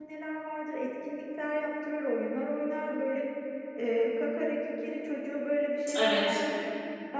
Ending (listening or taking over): listening